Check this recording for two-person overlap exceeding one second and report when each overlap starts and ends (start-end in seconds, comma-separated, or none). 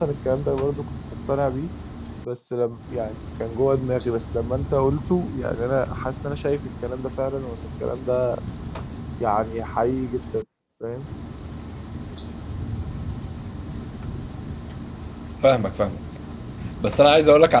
none